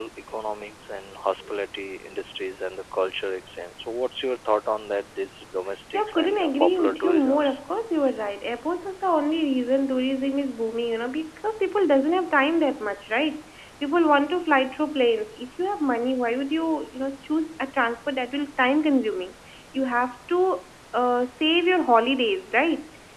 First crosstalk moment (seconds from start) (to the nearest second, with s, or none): 6 s